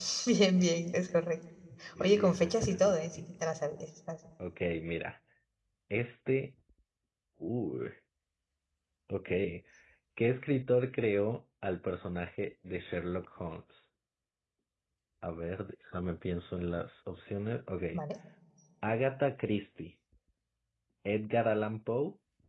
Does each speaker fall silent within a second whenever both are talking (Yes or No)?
No